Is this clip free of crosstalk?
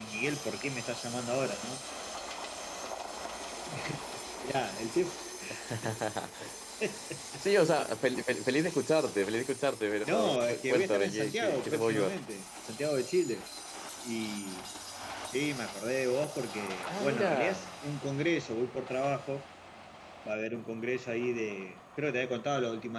No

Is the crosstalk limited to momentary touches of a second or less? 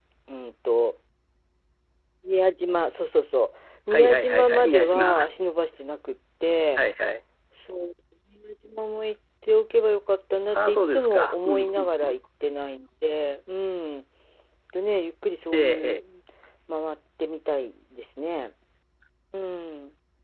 No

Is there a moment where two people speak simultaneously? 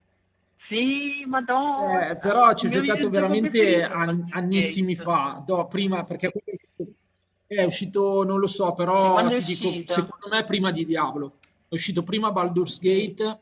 Yes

